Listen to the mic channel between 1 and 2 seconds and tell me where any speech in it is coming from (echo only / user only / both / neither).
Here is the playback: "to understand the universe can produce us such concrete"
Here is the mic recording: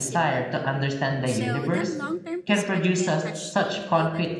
both